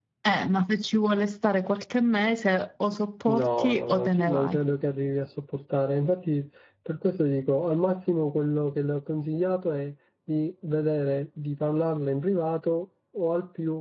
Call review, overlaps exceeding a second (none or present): present